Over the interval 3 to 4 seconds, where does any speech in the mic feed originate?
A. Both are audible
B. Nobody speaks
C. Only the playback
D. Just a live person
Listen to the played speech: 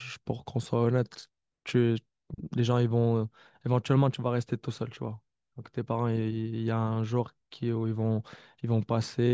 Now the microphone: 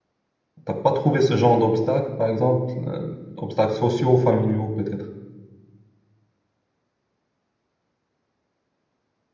D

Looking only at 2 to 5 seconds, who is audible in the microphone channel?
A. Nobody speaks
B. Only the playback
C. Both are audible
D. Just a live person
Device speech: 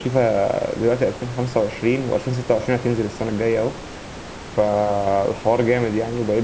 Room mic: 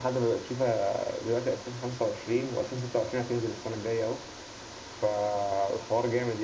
B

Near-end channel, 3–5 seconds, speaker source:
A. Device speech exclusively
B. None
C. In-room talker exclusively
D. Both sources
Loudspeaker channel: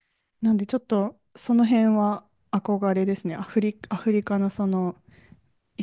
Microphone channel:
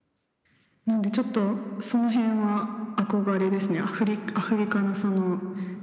A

